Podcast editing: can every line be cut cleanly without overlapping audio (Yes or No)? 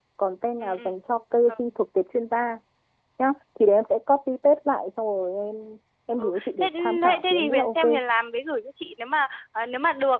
No